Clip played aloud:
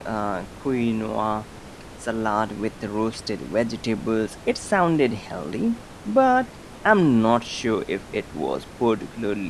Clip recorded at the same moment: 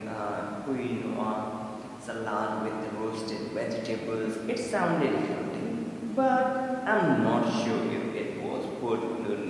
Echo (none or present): present